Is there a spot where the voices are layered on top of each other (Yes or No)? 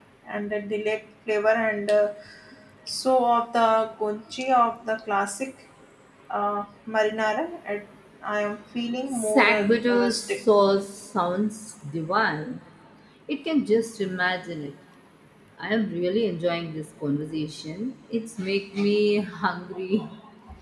Yes